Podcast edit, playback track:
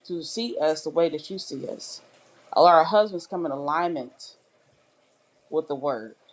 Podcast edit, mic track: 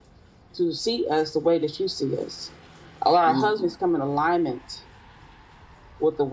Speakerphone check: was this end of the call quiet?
No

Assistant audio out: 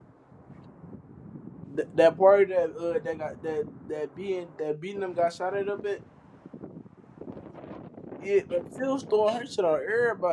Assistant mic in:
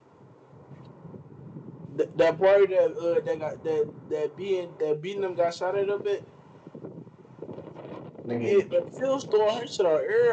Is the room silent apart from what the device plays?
No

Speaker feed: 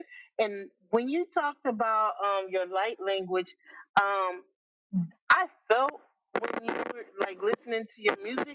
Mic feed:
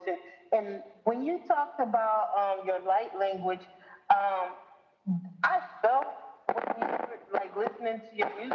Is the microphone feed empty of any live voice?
Yes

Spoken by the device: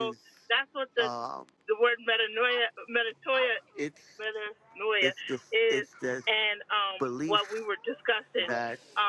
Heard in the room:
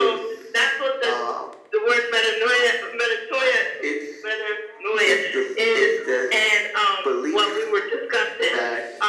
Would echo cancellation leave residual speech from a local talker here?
No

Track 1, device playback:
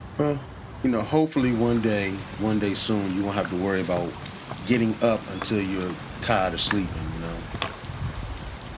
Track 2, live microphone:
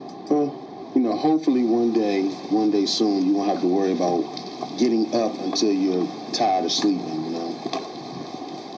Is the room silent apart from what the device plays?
Yes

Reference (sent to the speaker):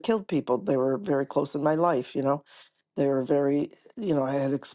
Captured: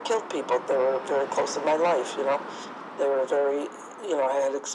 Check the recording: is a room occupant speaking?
No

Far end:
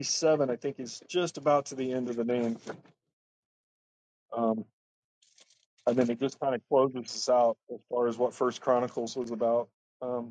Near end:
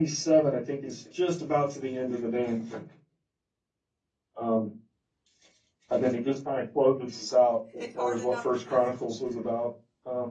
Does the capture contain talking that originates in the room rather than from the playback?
Yes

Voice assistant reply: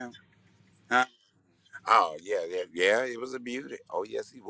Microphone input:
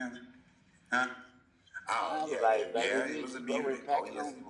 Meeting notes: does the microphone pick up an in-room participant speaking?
Yes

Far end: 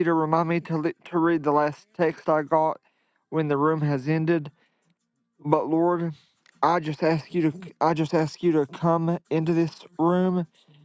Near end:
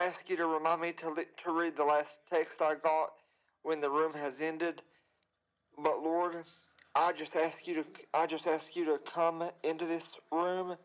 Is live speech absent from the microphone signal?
Yes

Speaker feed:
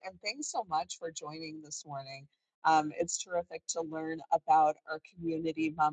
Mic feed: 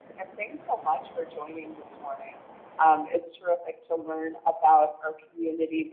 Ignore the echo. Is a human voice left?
No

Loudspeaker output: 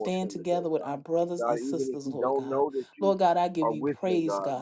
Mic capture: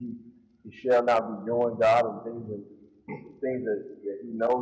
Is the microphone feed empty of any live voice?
No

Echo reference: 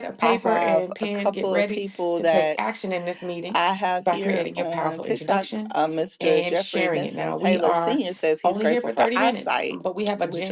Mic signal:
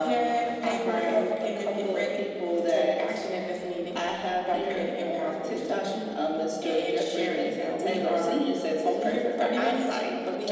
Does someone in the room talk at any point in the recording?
No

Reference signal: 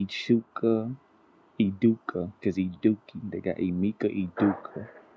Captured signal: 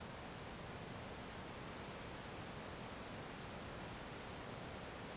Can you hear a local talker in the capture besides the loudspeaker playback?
No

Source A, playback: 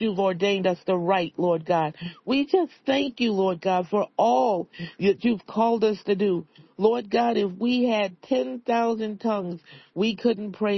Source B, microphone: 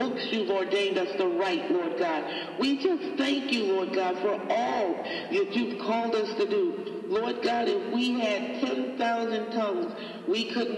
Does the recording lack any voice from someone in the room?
Yes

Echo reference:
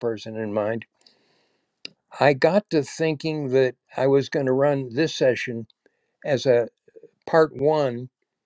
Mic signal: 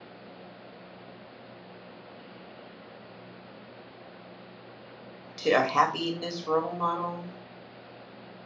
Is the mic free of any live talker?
No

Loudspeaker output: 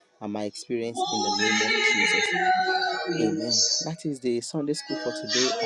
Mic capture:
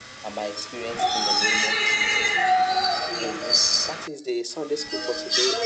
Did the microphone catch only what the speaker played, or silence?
Yes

